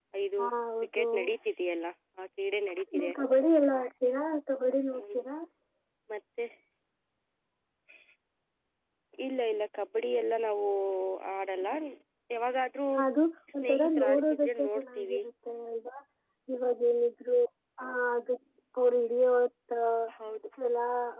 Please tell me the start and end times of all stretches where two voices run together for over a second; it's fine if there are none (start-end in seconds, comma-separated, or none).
13.6-15.2